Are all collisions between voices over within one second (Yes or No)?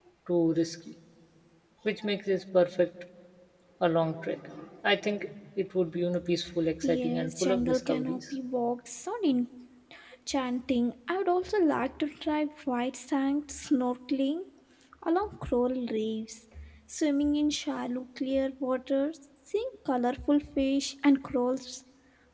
No